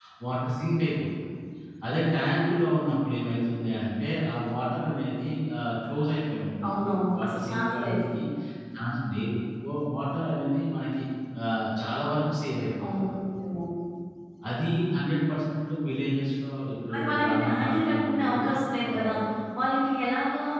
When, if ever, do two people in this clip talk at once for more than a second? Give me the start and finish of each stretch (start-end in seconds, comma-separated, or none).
6.7-8.1, 16.9-18.4